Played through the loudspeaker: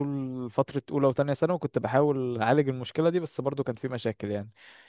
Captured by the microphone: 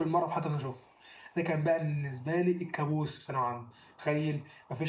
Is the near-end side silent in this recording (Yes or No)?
No